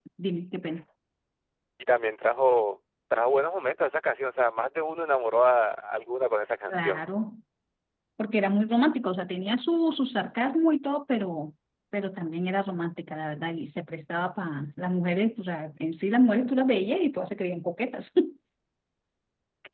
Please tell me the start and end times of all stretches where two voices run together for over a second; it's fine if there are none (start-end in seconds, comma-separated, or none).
none